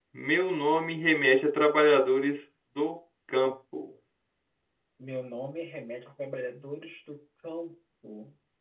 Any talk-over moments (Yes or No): No